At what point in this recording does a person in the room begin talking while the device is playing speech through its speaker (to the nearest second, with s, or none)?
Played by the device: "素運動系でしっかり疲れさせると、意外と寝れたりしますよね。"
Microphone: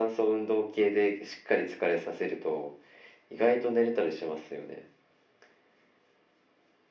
none